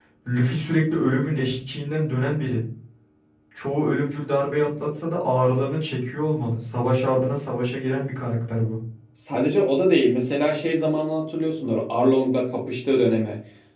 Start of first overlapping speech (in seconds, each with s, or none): none